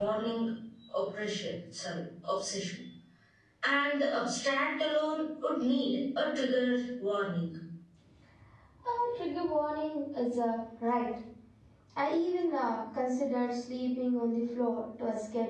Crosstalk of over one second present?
No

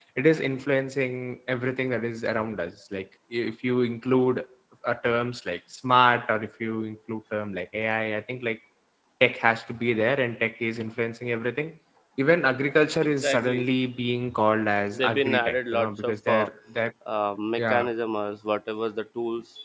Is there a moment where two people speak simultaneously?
Yes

